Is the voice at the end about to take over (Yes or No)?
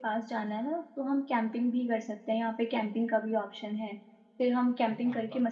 No